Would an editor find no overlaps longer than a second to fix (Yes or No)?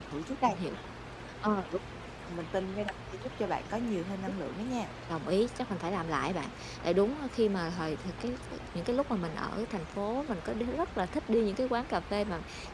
Yes